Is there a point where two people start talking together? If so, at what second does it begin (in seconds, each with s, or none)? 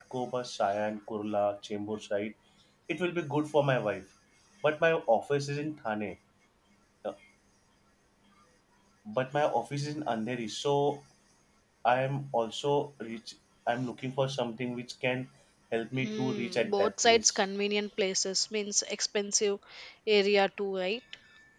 16.0 s